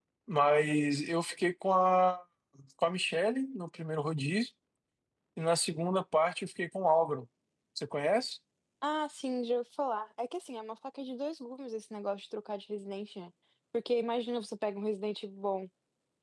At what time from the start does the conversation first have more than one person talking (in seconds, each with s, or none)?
none